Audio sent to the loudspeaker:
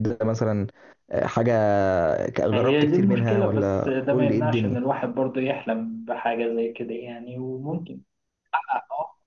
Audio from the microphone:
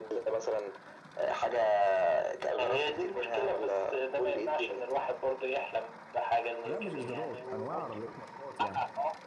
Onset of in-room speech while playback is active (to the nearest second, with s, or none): 7 s